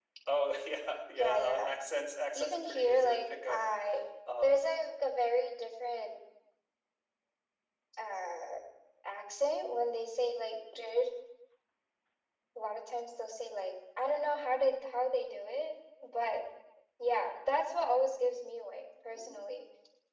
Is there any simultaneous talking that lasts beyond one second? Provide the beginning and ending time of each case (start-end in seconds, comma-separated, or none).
2.3-3.6